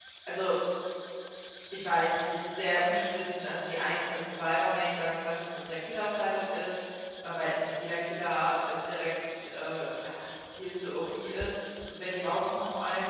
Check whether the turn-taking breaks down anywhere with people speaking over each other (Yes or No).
No